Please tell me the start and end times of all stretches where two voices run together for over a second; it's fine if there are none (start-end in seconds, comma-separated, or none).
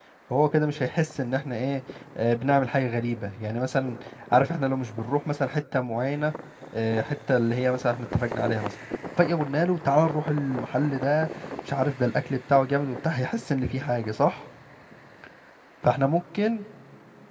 none